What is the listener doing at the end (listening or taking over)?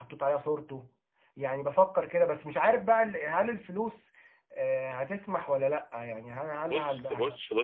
taking over